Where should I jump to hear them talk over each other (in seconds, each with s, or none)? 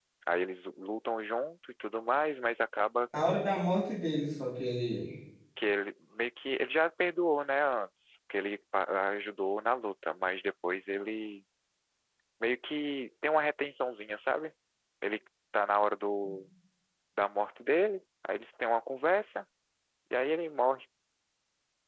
none